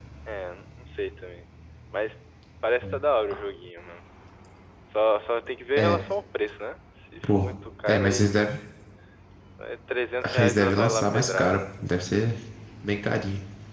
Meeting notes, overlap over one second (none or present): present